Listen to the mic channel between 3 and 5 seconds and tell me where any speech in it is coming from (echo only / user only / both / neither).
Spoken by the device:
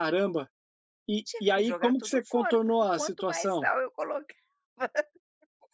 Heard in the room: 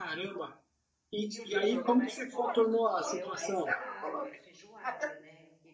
both